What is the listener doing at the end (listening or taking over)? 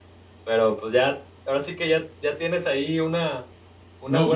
taking over